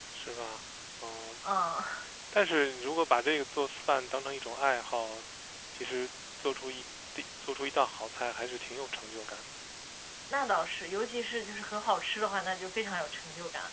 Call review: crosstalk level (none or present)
none